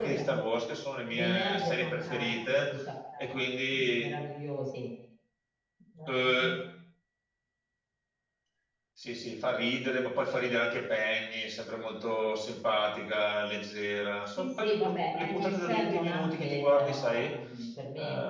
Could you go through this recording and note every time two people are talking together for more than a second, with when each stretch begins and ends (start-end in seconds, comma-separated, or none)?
1.1-2.7, 14.4-17.2